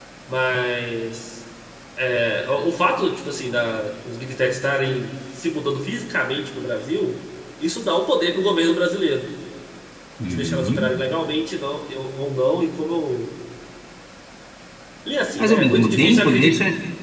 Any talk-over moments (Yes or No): Yes